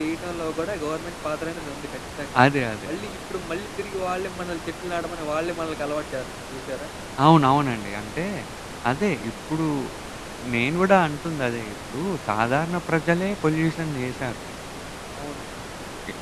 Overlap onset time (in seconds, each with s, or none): none